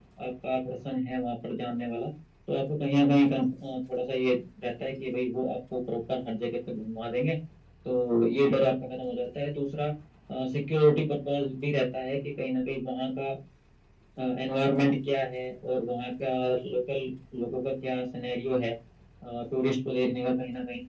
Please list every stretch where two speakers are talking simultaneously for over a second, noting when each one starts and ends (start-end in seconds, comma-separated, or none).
none